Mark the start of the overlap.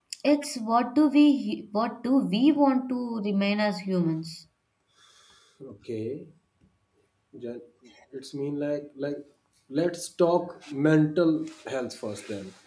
none

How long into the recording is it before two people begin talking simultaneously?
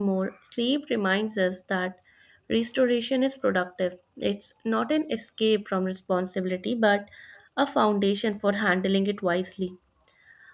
none

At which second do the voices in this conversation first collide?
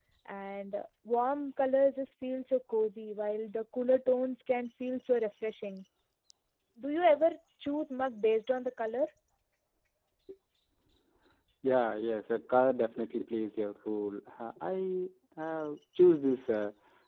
none

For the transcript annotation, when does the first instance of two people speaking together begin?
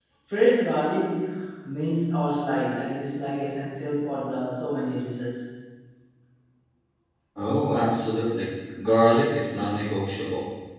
none

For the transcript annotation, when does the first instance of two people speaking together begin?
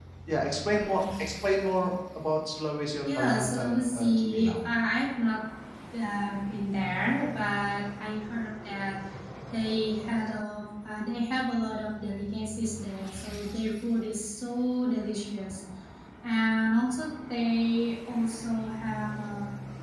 3.0 s

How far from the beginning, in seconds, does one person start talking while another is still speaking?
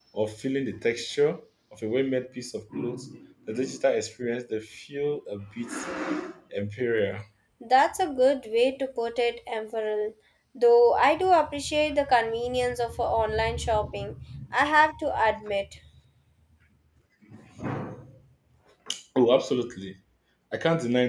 none

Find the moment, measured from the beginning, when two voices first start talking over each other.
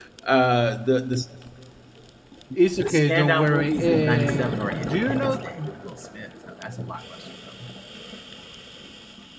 2.8 s

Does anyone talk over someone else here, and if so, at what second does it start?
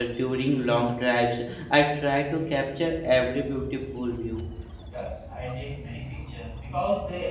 none

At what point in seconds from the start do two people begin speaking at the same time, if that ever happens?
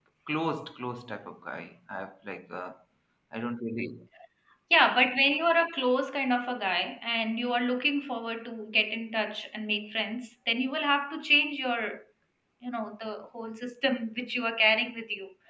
none

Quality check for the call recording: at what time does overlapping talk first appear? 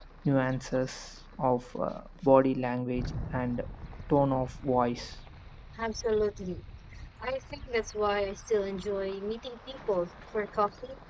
none

